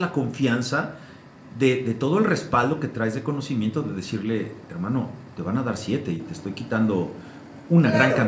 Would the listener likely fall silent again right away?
No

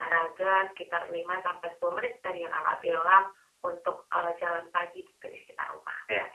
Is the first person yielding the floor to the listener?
Yes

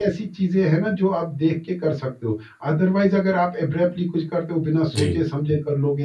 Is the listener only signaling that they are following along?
Yes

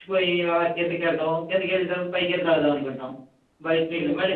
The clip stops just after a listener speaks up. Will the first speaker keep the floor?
Yes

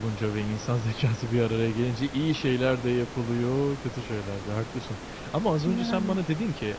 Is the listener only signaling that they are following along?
Yes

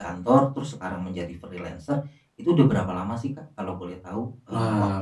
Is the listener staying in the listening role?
No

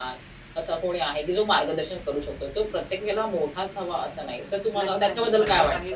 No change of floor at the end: No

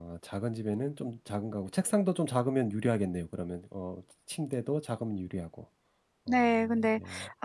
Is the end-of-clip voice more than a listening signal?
Yes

